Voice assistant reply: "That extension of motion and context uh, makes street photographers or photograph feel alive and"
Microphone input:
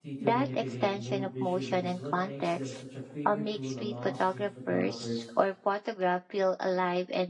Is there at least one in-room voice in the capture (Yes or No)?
Yes